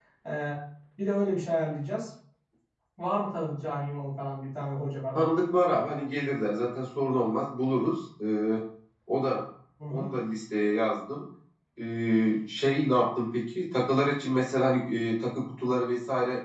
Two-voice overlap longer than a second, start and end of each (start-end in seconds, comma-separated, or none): none